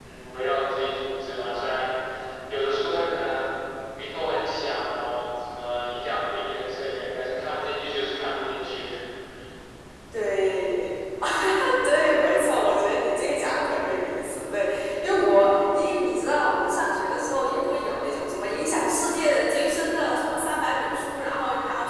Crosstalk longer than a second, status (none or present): none